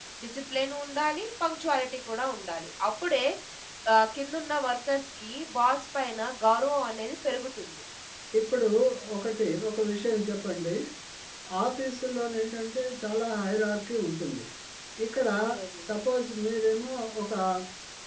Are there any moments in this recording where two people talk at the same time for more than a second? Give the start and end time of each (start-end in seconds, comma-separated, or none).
none